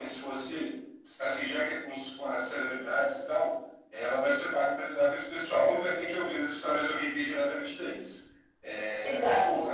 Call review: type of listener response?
listening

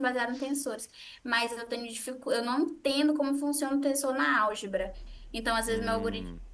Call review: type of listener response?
listening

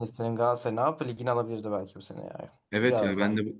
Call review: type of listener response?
taking over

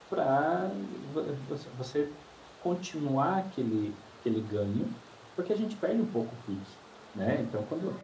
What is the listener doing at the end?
listening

